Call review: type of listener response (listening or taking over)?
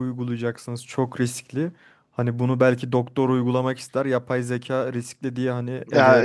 taking over